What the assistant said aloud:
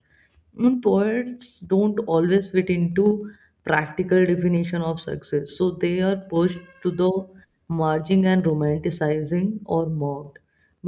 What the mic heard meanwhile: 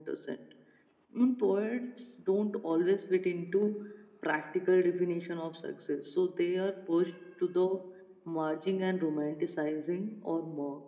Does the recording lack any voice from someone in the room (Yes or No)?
Yes